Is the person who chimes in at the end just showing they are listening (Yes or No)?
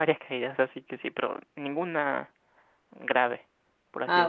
No